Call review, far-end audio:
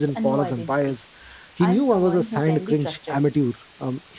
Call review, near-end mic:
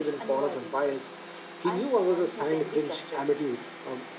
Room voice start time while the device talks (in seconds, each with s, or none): none